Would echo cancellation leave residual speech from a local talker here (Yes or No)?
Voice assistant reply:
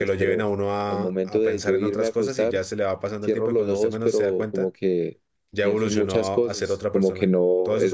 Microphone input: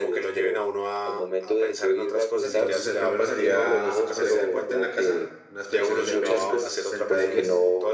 Yes